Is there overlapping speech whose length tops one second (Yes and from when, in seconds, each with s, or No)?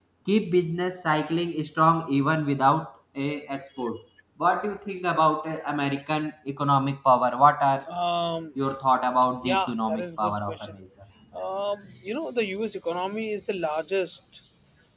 Yes, from 9.4 s